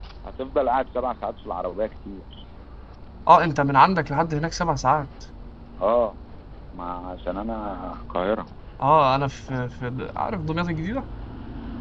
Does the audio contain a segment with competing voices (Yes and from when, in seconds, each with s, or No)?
No